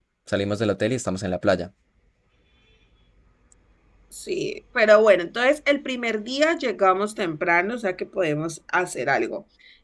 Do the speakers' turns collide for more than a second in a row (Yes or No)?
No